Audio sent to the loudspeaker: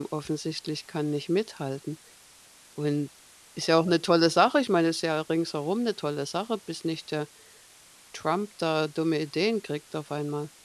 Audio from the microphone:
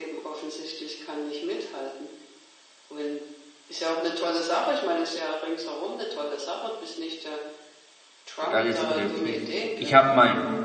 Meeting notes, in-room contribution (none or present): present